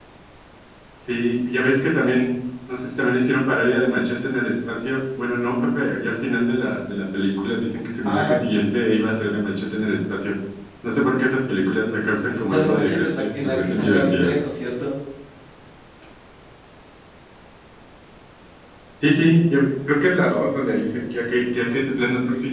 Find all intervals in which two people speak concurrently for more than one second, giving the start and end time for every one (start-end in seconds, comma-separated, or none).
12.5-14.4